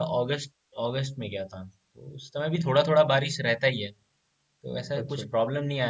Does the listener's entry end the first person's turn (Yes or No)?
No